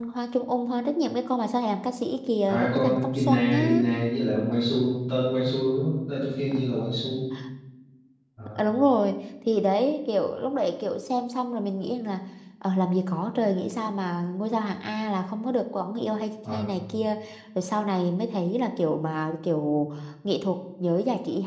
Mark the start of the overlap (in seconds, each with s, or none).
2.5 s